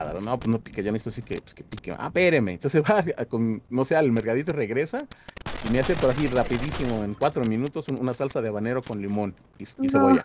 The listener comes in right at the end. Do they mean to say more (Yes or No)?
No